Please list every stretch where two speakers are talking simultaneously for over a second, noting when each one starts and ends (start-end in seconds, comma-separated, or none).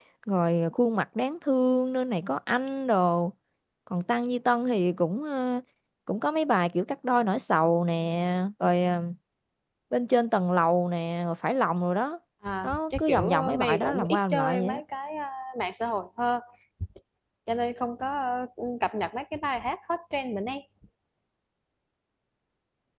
12.6-14.8